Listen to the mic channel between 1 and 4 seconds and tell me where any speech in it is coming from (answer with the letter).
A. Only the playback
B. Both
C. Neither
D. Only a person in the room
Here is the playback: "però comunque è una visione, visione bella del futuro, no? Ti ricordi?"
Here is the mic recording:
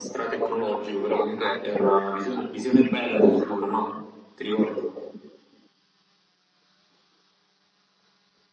A